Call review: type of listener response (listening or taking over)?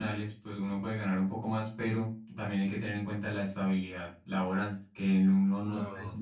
listening